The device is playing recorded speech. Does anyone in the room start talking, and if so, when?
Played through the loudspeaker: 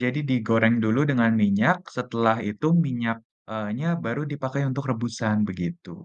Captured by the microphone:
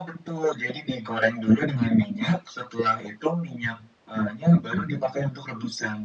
4.5 s

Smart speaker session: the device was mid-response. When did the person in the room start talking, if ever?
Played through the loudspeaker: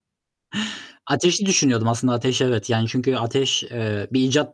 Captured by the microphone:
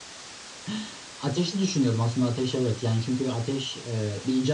none

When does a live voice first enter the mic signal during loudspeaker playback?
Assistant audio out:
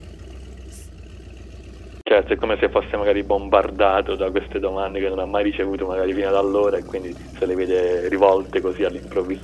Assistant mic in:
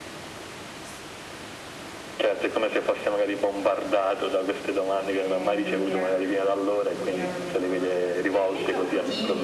5.1 s

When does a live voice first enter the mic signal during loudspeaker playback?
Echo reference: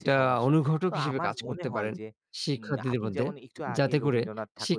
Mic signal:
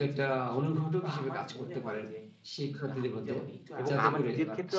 3.8 s

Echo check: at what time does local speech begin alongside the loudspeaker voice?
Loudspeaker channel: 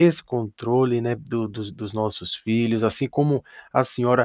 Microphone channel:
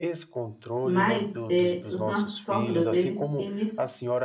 0.8 s

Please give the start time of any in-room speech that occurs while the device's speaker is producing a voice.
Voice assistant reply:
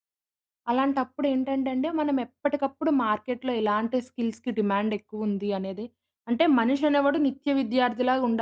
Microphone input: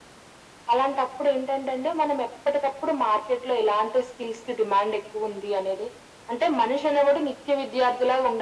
none

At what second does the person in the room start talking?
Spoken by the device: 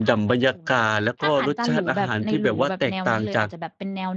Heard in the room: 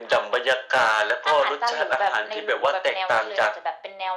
none

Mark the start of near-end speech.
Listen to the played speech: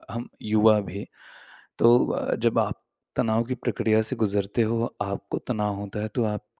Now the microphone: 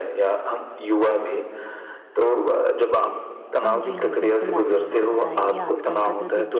3.6 s

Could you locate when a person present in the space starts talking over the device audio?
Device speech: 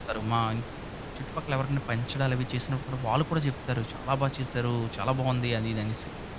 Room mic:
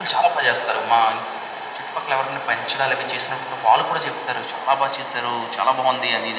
none

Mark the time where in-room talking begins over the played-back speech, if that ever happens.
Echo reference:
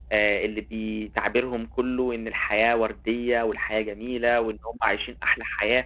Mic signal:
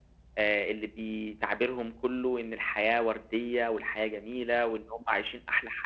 none

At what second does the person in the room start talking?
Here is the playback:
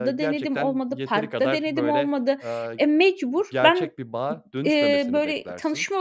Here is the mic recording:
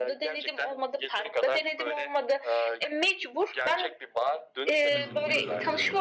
4.9 s

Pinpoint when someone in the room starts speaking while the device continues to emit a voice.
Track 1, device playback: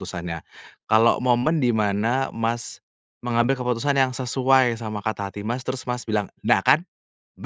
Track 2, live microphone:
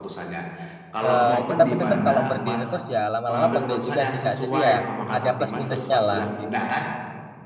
1.0 s

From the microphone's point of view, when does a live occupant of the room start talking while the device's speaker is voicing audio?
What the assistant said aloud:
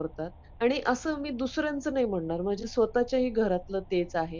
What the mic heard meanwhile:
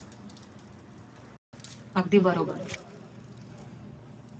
2.0 s

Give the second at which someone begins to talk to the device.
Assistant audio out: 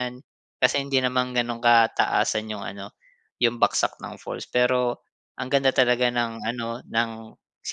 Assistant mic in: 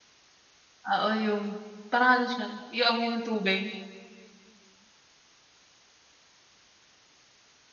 0.8 s

